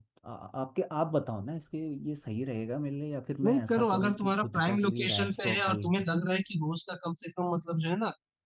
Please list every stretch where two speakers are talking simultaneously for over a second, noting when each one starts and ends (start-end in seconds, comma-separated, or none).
3.4-6.0